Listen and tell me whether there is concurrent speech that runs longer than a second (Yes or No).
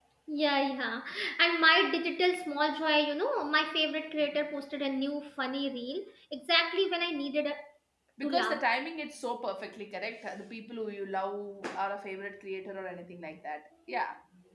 No